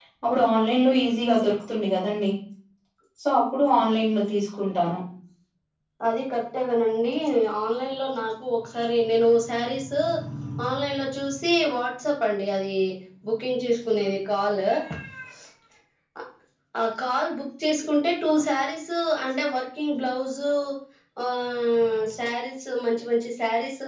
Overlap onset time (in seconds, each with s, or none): none